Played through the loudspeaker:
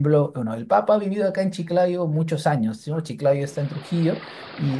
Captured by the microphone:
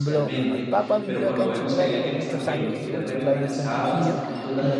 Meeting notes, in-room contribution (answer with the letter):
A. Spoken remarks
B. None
A